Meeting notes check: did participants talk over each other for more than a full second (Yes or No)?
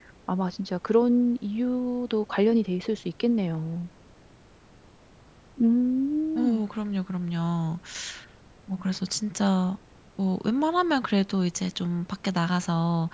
No